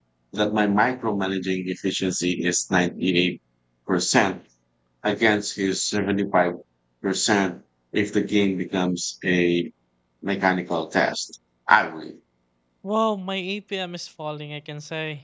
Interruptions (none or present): none